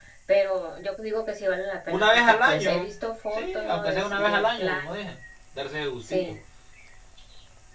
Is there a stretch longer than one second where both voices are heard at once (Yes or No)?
Yes